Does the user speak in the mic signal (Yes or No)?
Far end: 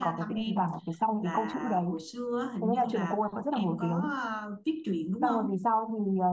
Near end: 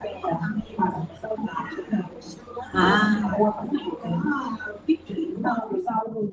Yes